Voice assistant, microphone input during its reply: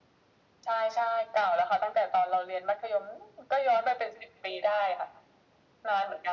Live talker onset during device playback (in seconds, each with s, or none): none